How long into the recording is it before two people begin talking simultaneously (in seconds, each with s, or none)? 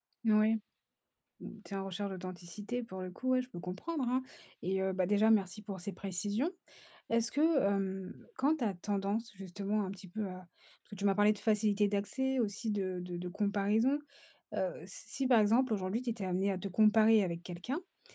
none